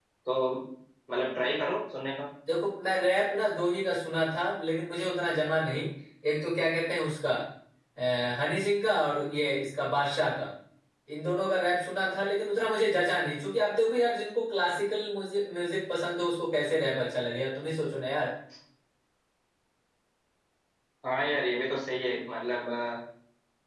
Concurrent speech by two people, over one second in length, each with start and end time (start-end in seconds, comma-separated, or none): none